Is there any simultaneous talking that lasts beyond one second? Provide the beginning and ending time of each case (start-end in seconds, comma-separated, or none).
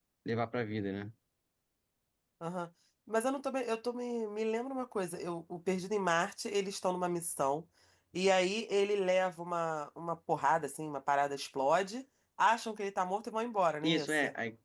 none